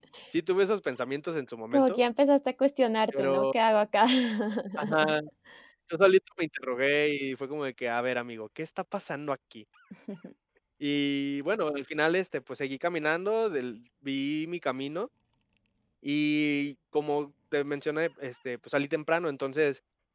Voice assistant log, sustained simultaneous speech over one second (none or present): none